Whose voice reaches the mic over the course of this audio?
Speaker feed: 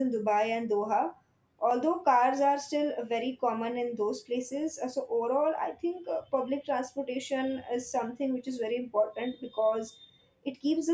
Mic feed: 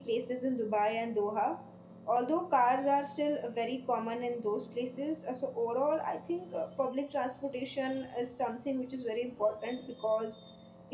echo only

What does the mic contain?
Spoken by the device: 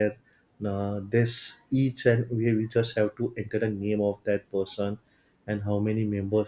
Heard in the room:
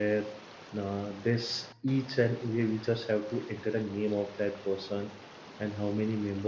echo only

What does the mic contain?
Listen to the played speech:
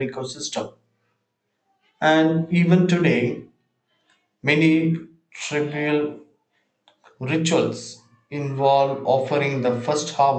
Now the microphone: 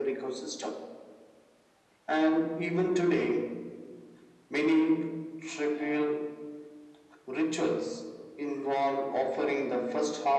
echo only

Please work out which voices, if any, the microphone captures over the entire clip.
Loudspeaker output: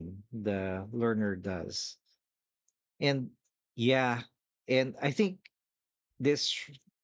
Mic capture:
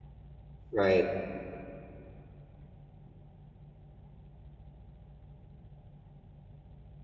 user only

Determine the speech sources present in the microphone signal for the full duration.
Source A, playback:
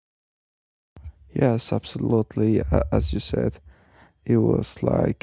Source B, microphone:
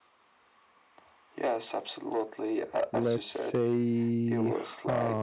both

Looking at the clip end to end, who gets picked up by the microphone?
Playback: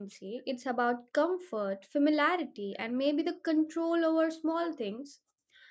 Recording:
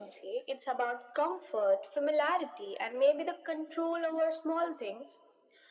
echo only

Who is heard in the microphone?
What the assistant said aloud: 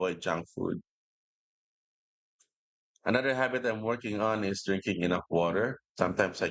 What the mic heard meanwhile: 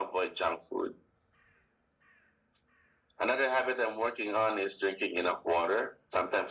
echo only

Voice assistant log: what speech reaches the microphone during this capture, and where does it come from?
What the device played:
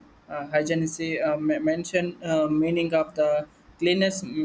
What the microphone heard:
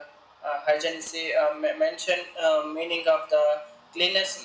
echo only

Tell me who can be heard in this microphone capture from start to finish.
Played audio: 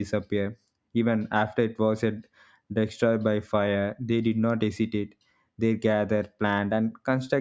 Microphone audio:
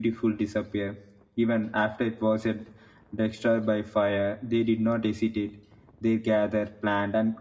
echo only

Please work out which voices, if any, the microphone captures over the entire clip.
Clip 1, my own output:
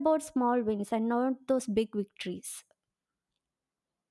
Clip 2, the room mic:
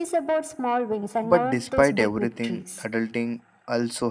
both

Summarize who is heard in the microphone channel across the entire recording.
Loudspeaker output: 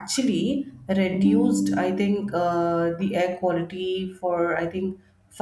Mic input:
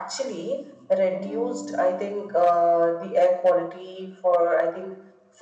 echo only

